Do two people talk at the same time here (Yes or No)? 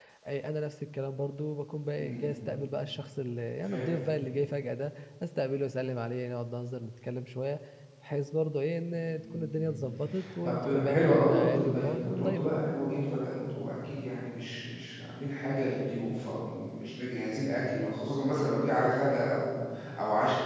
Yes